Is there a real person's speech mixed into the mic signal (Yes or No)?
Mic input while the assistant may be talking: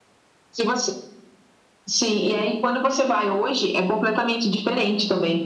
No